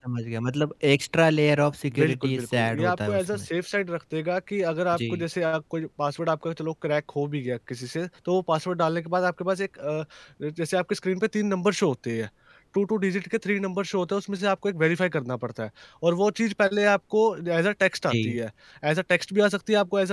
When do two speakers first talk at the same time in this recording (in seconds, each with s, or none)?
2.0 s